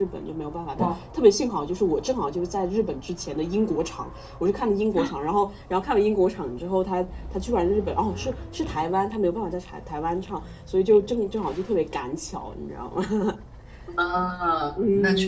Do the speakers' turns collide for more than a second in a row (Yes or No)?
No